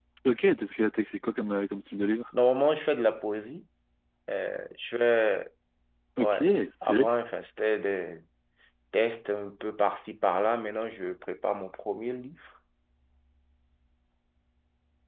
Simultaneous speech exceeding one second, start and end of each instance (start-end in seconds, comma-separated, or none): none